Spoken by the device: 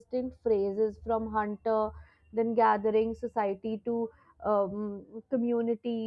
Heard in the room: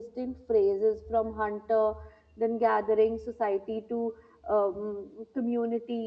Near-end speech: none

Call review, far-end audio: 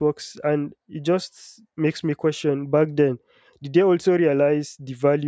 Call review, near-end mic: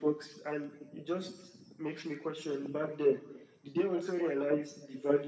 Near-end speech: none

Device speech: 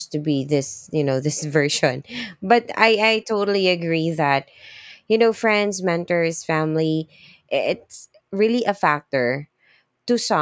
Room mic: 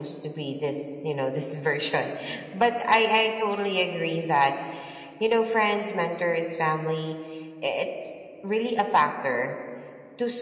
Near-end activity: none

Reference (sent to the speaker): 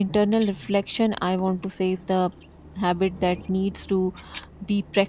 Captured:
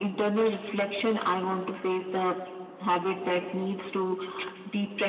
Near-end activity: none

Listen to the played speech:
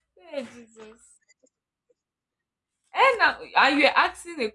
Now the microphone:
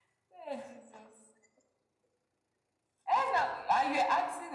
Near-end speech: none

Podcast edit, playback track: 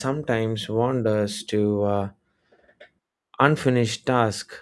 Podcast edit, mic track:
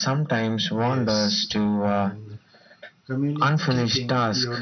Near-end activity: present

